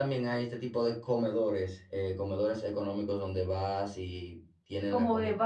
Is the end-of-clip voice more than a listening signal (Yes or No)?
Yes